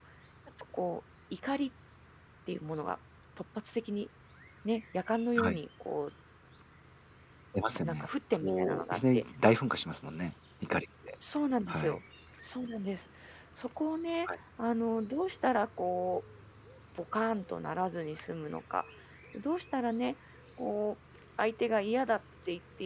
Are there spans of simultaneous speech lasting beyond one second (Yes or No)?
Yes